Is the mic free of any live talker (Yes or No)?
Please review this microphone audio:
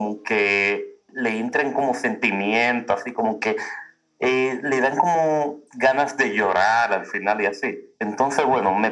Yes